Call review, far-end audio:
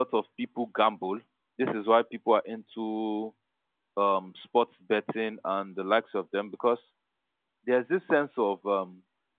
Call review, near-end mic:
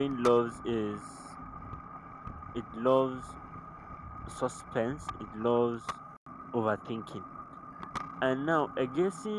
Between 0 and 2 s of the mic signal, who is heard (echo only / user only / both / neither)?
user only